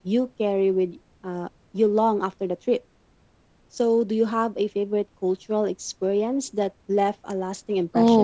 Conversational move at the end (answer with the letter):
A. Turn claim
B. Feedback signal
A